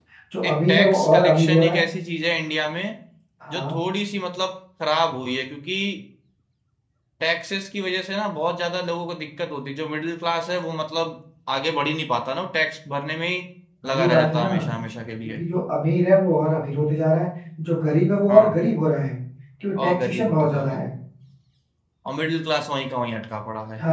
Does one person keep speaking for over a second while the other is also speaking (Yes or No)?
Yes